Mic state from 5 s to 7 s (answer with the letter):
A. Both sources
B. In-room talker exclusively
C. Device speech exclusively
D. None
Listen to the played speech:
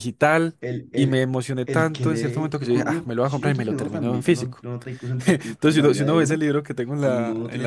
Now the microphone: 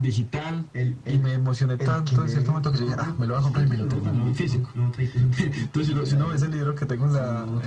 C